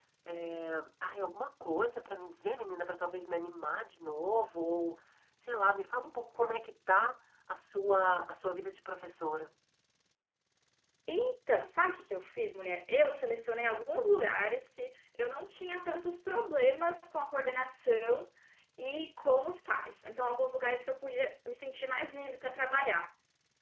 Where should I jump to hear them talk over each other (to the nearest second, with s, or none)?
none